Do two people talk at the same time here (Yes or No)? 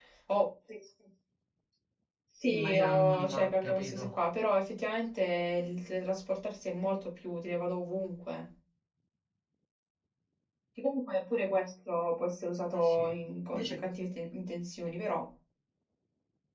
Yes